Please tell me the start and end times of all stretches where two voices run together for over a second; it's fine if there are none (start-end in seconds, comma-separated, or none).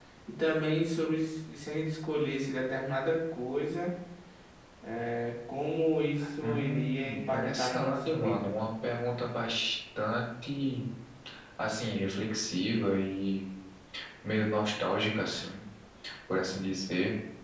6.4-8.5